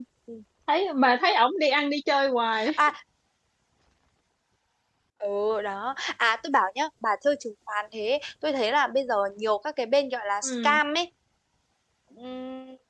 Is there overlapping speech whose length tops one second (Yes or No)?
No